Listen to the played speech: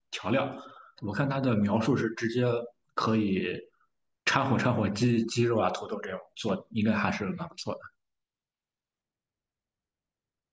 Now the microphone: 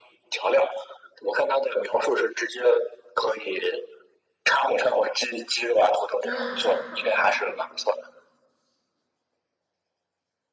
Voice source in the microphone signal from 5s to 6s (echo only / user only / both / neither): echo only